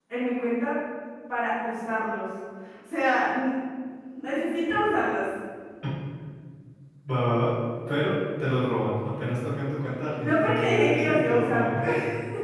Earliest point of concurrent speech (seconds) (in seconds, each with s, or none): 10.2 s